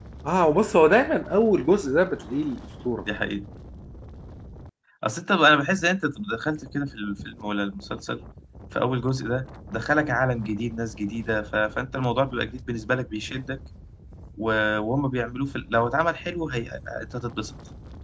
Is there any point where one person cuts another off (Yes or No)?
No